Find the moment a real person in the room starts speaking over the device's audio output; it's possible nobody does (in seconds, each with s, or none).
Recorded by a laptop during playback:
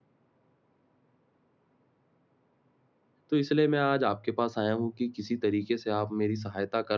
3.3 s